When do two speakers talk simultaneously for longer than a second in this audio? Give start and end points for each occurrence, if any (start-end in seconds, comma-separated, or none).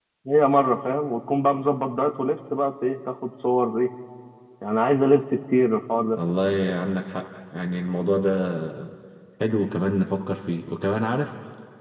none